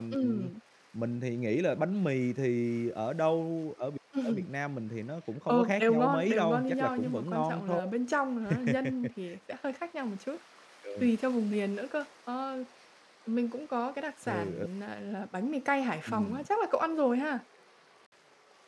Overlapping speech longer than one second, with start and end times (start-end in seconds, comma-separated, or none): 5.5-7.8